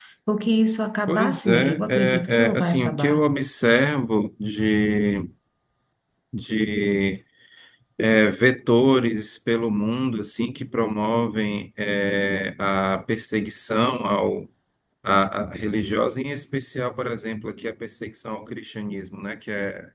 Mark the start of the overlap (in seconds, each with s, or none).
1.1 s